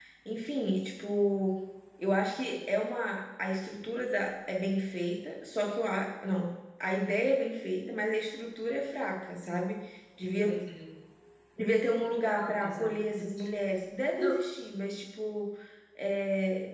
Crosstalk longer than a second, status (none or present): present